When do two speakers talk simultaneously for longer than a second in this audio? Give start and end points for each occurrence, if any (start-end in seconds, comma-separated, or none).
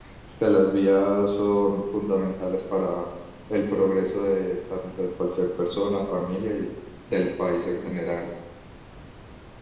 none